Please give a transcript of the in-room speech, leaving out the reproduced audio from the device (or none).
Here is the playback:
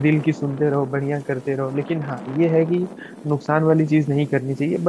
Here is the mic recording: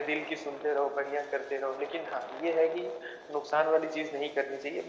none